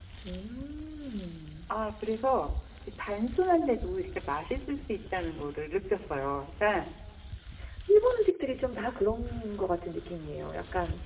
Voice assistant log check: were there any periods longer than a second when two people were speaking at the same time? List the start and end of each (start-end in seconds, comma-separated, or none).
none